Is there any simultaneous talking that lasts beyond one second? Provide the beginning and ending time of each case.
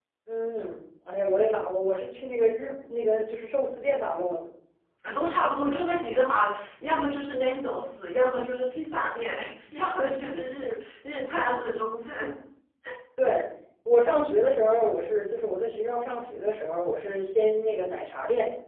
none

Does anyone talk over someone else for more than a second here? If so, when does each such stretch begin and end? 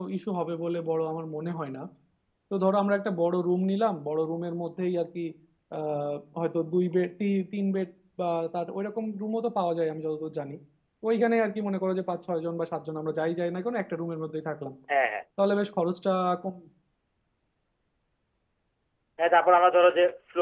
none

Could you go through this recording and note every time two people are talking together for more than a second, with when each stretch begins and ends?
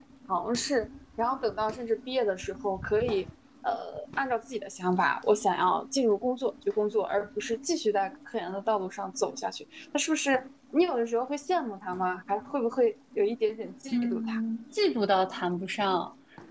none

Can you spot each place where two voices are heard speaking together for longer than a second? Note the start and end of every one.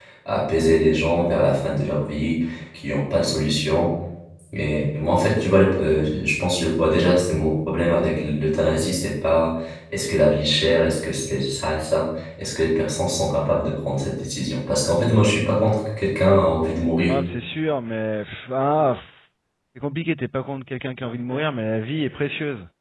none

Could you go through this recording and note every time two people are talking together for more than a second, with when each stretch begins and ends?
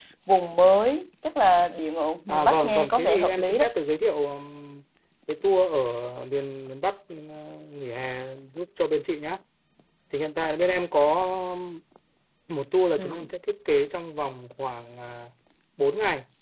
2.3-3.7

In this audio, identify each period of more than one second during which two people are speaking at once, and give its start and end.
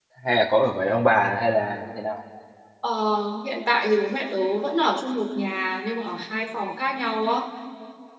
none

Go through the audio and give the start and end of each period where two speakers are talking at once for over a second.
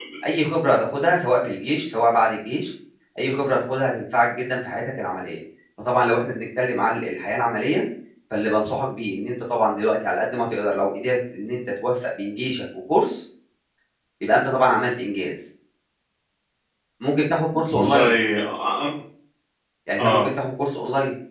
none

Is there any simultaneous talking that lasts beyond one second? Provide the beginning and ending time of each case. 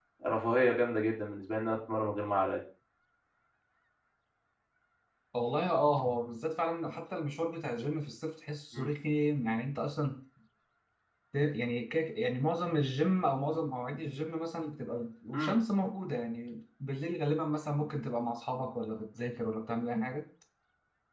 none

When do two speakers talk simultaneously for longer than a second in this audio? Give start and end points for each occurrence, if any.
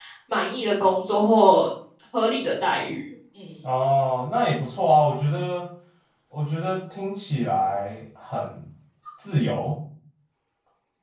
none

